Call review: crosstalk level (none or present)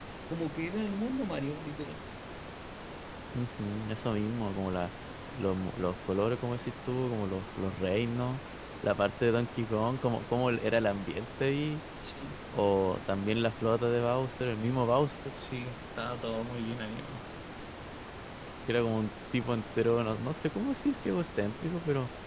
none